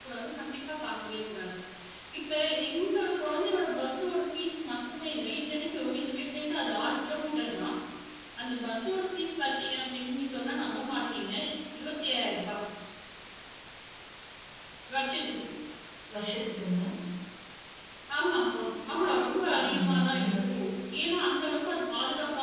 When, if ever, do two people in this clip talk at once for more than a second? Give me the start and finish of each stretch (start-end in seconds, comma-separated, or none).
18.9-20.5